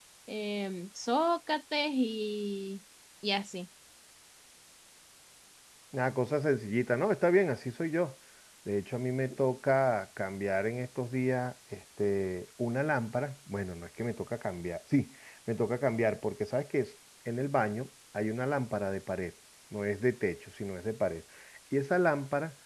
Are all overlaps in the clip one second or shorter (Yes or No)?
Yes